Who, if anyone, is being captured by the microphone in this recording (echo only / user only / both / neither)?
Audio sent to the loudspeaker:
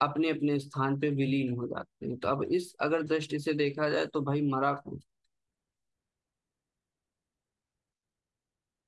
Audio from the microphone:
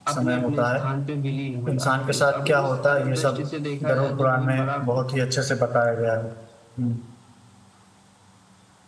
both